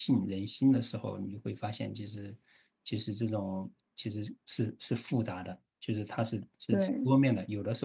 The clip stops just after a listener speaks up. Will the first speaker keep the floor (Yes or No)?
Yes